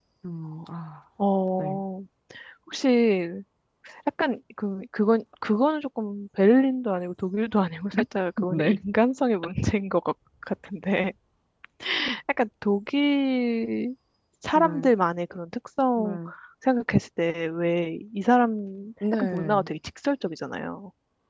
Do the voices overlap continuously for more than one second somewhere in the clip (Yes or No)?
No